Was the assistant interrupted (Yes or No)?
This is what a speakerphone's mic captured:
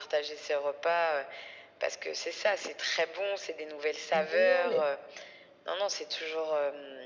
Yes